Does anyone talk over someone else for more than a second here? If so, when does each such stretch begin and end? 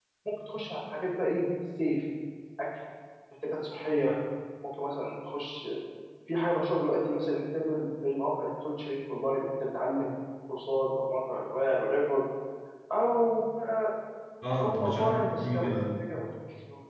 14.5-16.0

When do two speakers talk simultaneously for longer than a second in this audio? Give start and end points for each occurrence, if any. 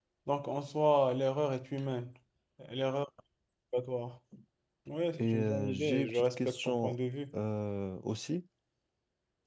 5.1-7.0

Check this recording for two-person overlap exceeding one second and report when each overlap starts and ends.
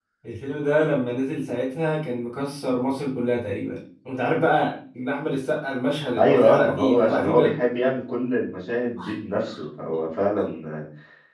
6.2-7.5

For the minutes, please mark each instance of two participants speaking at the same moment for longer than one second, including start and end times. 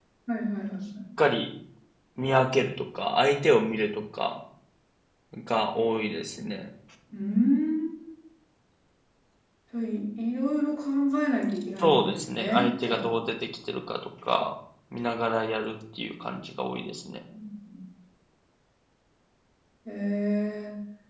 11.8-13.2

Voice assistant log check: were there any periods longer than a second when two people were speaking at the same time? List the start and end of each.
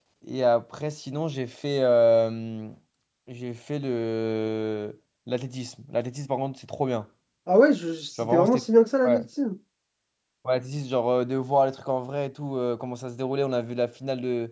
none

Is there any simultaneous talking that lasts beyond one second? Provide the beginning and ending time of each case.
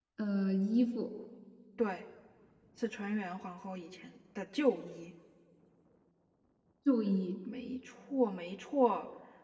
none

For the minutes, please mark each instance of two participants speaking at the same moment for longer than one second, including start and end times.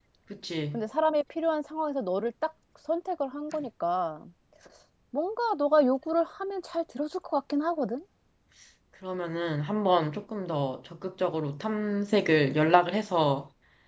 none

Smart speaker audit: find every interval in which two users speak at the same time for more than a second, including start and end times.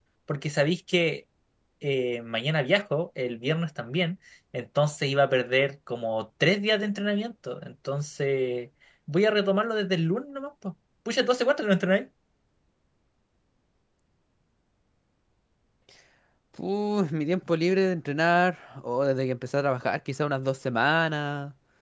none

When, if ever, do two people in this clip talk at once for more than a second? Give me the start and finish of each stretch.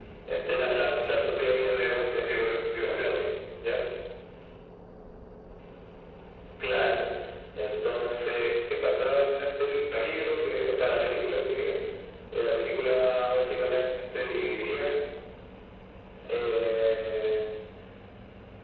1.4-3.2

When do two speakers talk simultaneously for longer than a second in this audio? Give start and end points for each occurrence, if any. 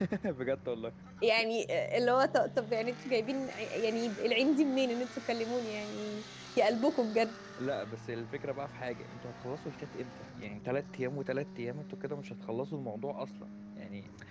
none

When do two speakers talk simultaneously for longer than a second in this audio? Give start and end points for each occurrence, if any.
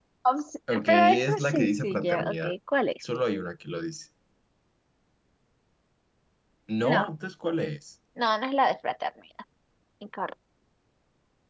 0.7-2.5

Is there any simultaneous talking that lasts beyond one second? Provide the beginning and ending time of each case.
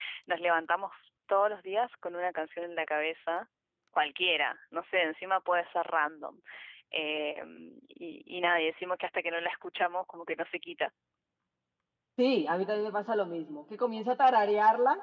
none

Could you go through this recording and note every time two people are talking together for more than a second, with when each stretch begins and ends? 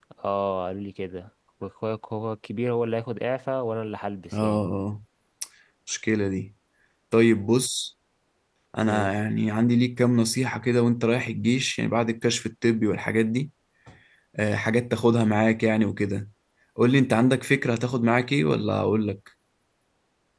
none

